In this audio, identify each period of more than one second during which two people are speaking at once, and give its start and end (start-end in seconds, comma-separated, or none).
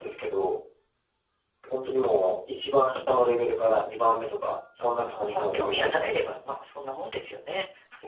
4.8-6.1